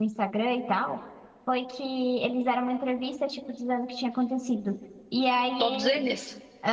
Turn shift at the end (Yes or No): No